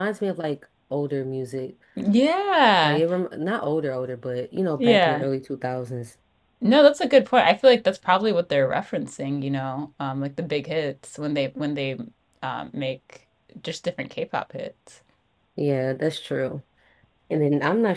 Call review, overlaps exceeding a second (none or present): none